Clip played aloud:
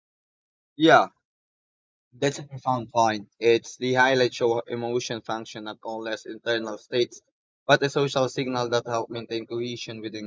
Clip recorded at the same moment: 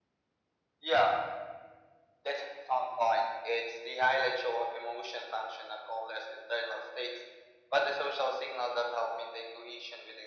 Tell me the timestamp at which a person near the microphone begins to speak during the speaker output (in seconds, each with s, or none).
none